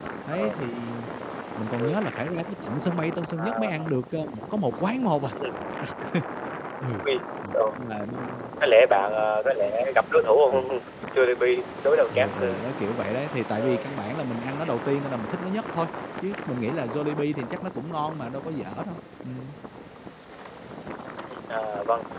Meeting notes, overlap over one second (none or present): none